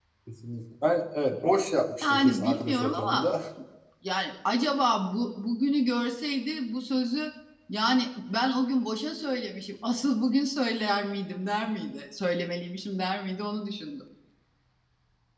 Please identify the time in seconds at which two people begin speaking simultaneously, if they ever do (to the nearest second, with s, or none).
2 s